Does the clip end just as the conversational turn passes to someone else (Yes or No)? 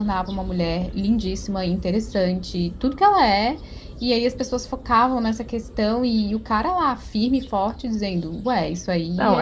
Yes